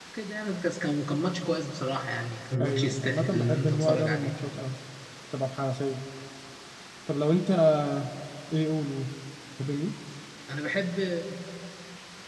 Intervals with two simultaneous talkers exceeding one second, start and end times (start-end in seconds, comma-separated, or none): 2.6-4.3